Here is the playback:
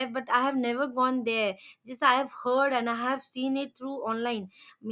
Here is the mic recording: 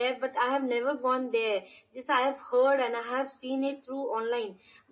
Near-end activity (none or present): none